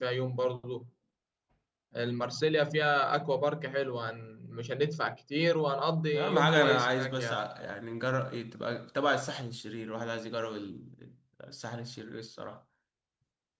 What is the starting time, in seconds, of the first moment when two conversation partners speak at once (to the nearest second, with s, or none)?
6 s